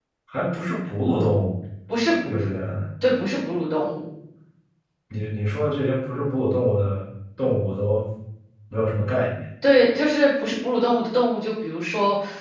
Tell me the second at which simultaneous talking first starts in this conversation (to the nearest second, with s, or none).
none